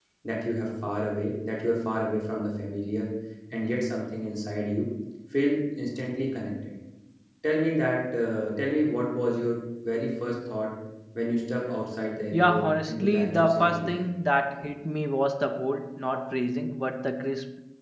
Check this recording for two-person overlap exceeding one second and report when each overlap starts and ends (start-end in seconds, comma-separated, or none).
12.3-14.0